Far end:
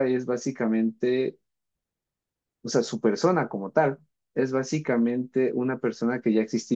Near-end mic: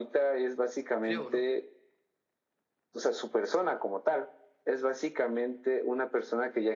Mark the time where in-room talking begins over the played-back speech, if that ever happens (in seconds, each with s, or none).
1.0 s